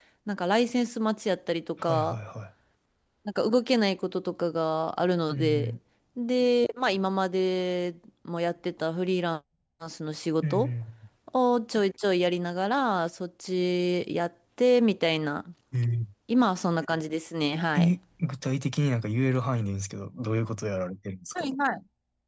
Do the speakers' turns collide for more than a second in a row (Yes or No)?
No